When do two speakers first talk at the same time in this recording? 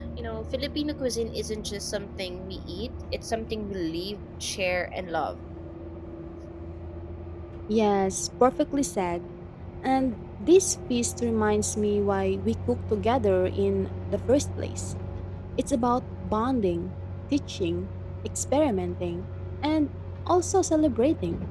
none

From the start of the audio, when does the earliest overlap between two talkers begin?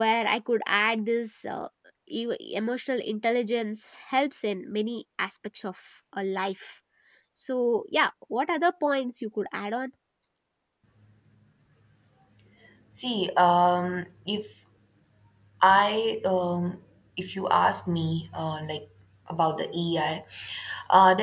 none

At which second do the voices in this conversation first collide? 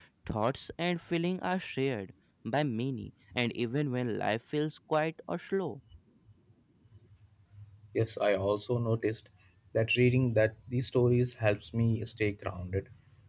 none

